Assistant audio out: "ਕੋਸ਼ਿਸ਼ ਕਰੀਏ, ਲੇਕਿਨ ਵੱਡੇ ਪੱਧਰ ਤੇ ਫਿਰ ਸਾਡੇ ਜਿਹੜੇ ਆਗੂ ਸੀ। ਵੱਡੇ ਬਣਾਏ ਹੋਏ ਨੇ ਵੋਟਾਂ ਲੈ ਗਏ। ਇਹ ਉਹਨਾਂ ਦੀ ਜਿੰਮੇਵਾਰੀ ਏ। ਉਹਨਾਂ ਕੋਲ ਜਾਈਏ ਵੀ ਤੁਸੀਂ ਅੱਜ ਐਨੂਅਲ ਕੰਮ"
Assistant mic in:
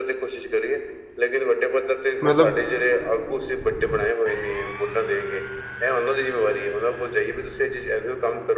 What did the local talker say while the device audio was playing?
ਮਤਲਬ

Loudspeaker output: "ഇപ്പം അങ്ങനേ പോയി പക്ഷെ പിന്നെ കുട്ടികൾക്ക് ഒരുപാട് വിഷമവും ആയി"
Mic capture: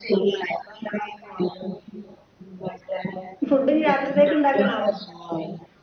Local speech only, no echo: ഫുഡിനി രാത്രിത്തേക്ക് ഉണ്ടാക്കണോ?

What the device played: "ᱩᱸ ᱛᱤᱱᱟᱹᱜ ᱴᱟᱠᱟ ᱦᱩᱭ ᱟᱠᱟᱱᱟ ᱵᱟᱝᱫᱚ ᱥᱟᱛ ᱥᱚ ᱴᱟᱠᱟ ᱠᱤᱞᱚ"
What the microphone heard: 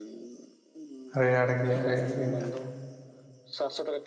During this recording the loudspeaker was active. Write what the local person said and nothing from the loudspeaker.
ᱨᱮᱭᱟᱲ ᱜᱮᱭᱟ ᱨᱮᱭᱟᱲ ᱫᱤᱱ ᱫᱚ

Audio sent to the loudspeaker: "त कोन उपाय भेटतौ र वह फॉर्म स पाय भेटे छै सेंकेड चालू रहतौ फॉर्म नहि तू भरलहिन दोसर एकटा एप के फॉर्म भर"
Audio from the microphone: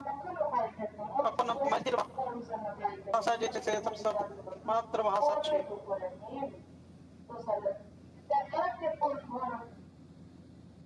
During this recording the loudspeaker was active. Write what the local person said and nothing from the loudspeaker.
अपन मैथिल भाषा जे छै से सबसँ मातृ भाषा छियै

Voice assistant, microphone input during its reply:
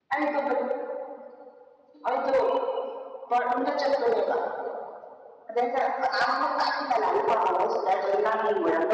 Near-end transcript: none

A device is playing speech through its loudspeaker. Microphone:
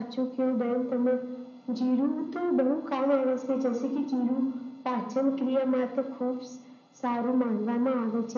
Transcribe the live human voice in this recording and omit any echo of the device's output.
none

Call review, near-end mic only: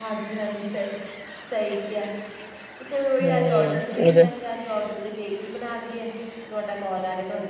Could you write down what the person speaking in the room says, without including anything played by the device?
ਹਮ ਉਹਦੇ,

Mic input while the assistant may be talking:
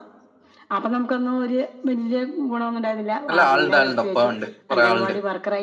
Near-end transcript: അല്ല ആള്ണ്ട് ആള്ണ്ട് ഒപ്പം ഒണ്ട് കുറെ ആള്ണ്ട്.

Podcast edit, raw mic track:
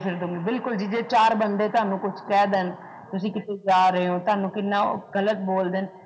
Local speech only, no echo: none

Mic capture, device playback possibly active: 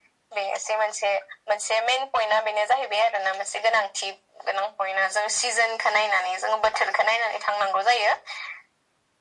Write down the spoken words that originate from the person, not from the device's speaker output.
none

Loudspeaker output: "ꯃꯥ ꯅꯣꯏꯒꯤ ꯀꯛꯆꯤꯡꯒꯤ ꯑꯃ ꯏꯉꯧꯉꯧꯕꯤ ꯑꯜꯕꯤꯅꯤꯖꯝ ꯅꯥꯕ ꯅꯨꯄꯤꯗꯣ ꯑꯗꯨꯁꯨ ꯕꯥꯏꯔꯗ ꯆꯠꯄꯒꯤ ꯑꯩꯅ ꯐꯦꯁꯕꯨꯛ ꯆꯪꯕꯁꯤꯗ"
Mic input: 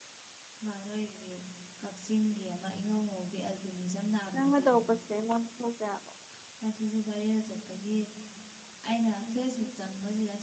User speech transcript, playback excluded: ꯅꯪꯉ ꯇꯧ ꯀꯁ ꯂꯩꯦ ꯃ ꯈ ꯇ ꯑꯕ

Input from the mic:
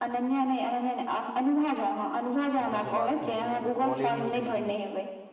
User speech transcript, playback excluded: किनको से बात केने छलियनि तऽ कॉले नहि उठेलखिन

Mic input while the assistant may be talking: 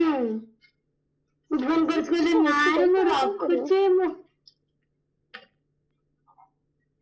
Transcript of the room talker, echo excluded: ସେ ଅଛି ପଇସା ଆଉ କଣ କରିବ।

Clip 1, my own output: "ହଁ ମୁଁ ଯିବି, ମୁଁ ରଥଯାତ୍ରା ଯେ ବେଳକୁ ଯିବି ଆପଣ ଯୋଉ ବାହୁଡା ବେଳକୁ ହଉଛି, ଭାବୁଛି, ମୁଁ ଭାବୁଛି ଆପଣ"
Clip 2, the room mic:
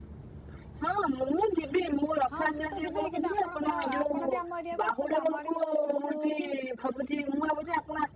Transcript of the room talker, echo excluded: ହଁ ମୁଁ ତ ଯିବି, କିନ୍ତୁ ଆପଣଙ୍କ ଆପଣ ବି ଆମ ଏରିଆକୁ ଆସନ୍ତୁ, ଆମ ଆଡେ ବି ବହୁତ ଭଲସେ ହଉଛି।

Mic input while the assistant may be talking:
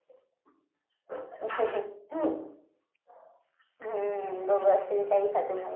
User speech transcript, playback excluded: none

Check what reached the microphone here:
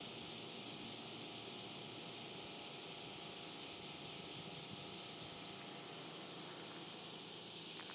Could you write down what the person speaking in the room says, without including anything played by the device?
none

